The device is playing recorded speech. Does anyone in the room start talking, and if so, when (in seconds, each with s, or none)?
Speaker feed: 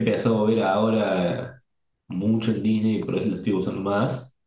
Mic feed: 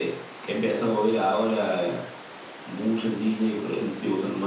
none